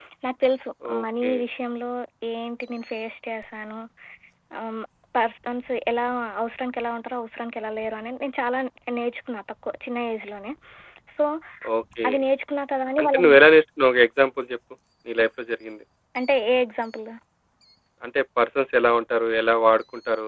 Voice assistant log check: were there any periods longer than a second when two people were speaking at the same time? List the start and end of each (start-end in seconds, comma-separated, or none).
none